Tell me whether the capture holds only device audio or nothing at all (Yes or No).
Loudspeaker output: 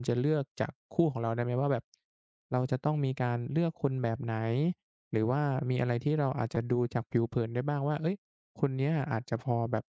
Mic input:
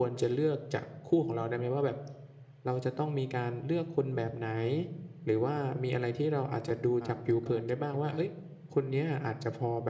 No